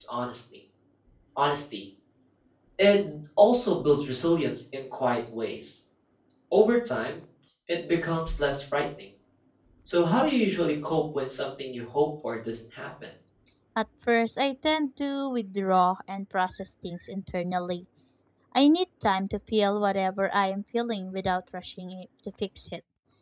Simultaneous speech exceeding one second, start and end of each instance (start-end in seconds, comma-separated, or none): none